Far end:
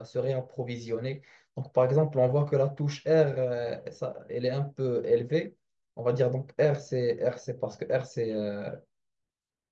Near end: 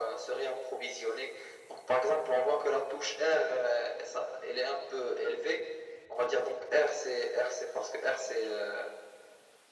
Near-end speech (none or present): none